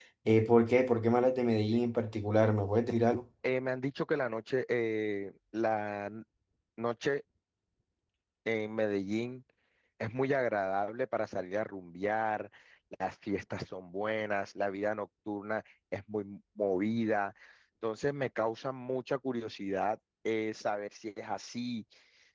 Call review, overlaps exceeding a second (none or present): none